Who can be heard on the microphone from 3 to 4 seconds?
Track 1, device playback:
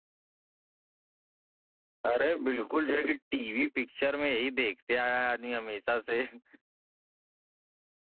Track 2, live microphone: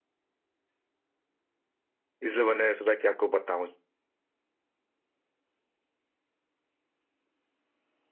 user only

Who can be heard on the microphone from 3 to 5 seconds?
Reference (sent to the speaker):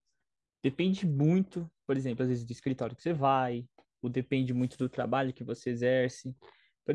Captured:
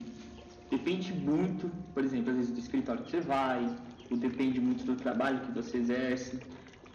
echo only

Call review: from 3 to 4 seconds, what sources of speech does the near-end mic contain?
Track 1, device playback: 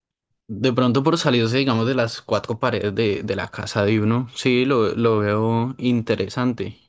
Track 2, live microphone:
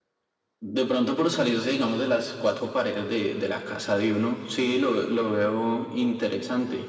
echo only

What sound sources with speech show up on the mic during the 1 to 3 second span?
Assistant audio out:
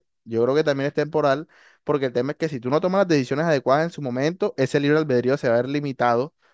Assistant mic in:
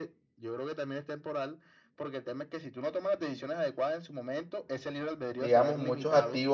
echo only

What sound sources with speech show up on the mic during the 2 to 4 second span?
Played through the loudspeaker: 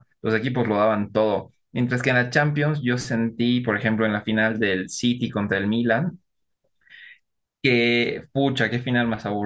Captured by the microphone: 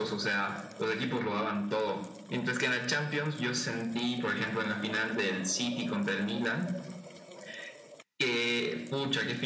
echo only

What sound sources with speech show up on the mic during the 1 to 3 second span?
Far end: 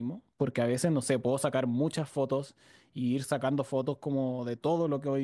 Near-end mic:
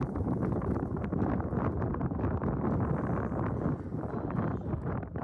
neither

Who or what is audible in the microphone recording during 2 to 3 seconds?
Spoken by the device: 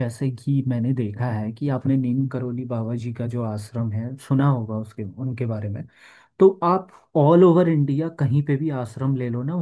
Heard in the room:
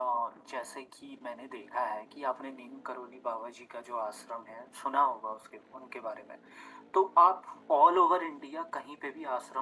echo only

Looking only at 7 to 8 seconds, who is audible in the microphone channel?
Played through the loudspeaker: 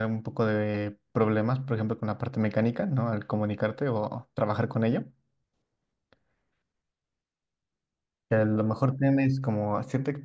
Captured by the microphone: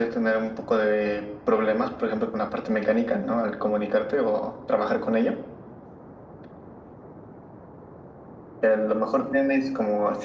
neither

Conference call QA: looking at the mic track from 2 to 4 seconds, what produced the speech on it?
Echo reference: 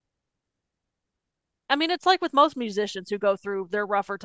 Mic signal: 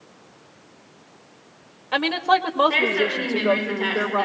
both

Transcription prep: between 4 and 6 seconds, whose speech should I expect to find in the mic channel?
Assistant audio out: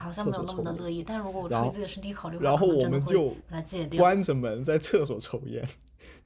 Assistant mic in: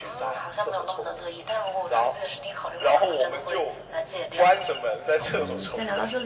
both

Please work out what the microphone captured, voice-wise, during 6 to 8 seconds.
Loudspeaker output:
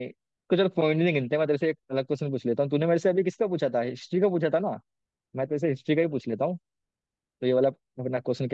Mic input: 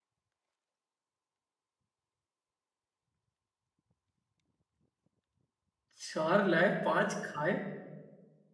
user only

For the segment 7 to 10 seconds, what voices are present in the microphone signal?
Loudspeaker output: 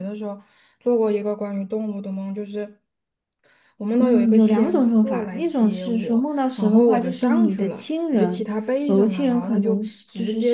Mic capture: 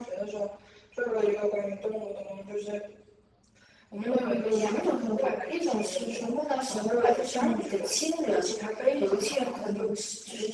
echo only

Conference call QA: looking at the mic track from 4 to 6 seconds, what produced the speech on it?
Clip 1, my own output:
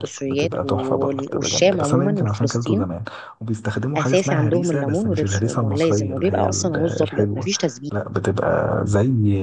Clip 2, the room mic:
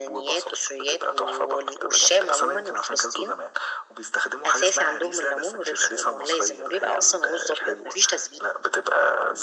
echo only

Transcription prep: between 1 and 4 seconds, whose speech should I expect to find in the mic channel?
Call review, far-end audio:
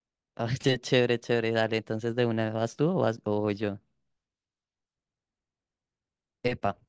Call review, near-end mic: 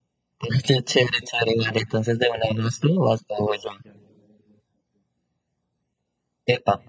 echo only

